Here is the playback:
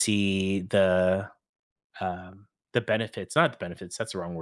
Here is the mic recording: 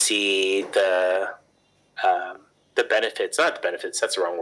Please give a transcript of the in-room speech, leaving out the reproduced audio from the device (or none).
none